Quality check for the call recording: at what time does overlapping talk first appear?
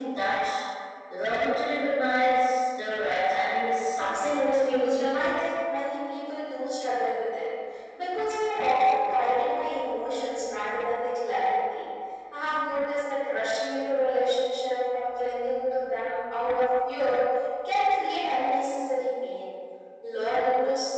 4.0 s

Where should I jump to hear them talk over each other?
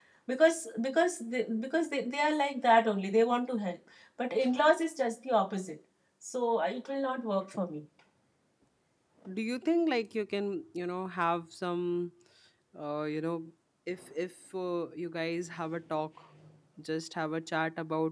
none

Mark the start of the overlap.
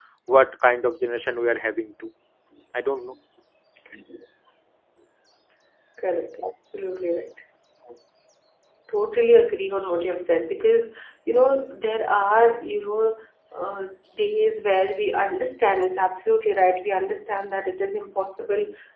none

